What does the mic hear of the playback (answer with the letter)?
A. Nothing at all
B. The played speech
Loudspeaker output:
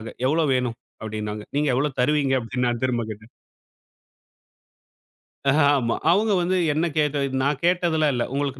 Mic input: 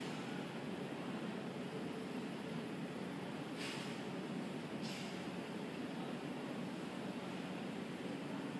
A